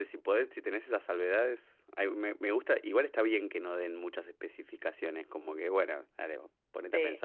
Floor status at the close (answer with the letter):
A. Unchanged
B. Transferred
B